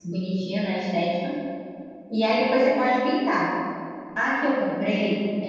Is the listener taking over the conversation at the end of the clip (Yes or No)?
No